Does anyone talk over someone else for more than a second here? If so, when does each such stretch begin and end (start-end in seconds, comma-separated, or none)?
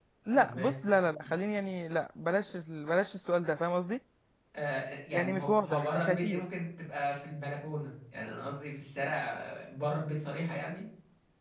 5.1-6.5